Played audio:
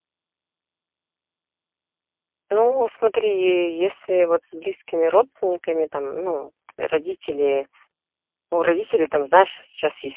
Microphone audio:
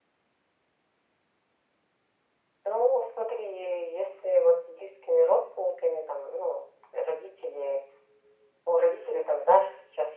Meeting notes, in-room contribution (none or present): none